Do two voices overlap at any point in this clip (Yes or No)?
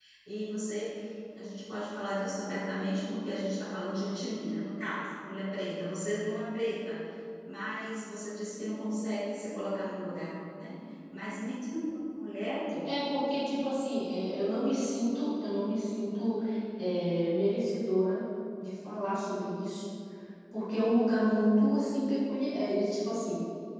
No